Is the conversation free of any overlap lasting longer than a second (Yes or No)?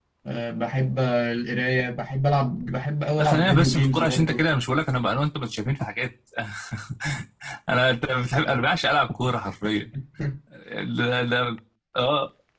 No